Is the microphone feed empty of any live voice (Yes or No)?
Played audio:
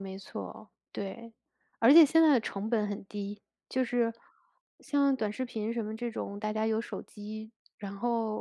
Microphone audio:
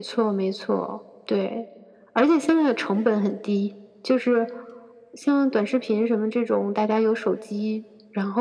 Yes